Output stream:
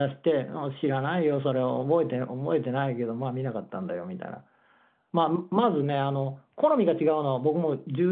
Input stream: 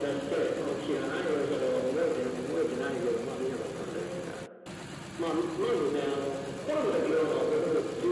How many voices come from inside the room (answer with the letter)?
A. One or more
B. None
B